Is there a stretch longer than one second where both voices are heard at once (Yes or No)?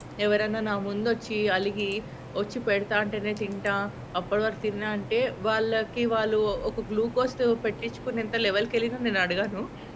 No